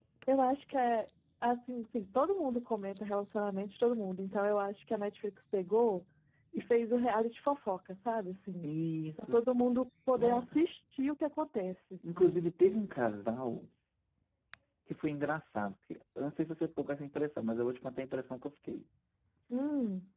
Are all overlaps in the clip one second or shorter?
Yes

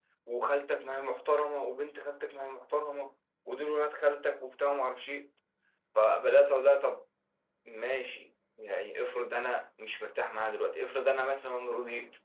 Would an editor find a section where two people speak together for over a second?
No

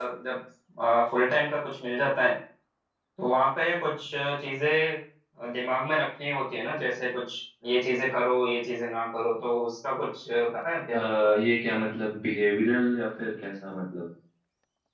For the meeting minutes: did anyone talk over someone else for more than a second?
No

